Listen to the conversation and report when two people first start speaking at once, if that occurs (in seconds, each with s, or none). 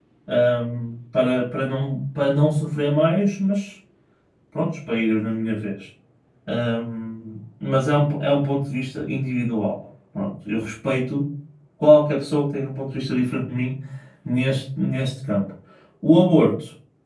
none